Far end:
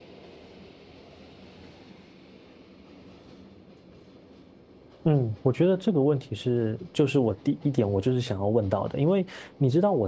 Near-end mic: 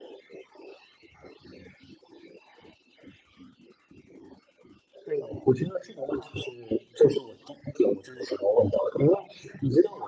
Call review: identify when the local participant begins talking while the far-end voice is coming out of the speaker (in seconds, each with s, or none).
none